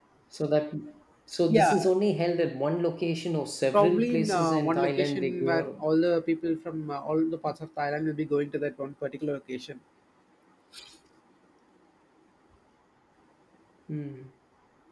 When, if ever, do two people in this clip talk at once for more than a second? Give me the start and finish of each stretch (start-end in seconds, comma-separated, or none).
3.7-5.8